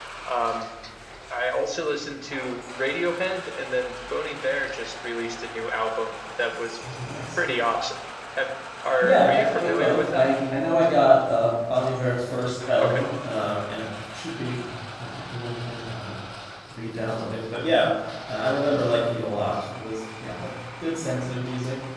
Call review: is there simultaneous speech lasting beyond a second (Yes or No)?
Yes